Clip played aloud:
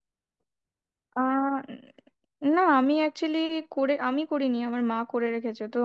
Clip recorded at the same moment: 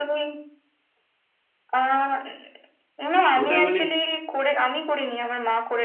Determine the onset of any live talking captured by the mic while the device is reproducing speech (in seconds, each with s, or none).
3.4 s